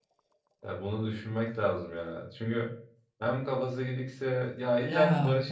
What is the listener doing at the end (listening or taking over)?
listening